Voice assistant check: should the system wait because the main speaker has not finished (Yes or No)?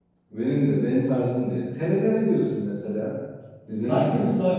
No